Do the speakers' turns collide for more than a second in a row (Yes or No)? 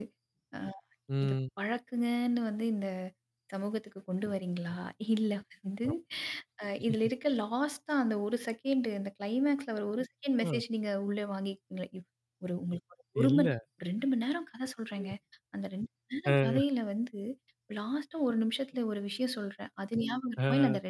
No